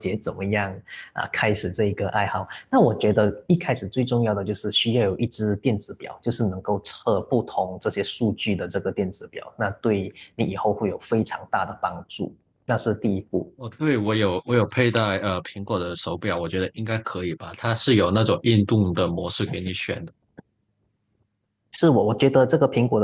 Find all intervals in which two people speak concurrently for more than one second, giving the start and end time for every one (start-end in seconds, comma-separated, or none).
none